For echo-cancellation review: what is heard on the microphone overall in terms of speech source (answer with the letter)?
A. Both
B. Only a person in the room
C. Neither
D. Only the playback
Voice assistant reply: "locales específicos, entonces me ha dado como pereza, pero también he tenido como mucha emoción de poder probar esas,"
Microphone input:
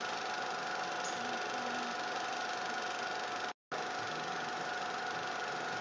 C